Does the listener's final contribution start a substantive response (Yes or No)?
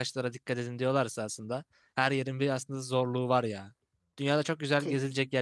No